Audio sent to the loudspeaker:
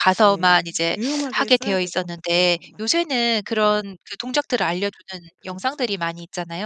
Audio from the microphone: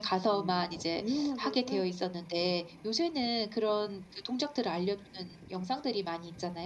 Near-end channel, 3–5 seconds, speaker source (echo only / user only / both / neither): echo only